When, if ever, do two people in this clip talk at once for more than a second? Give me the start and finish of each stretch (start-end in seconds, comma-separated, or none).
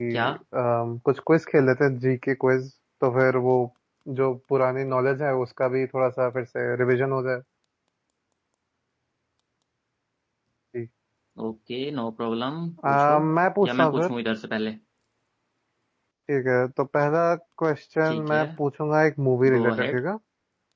none